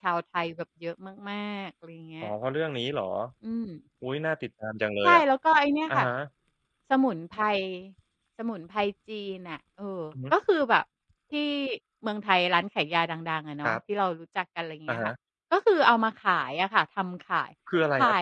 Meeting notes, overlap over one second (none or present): none